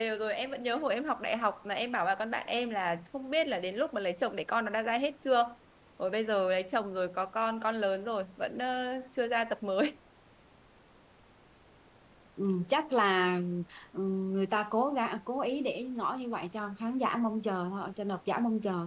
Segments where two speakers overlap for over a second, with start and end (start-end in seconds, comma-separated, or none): none